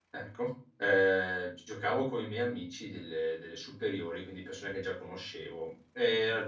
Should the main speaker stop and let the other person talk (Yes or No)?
No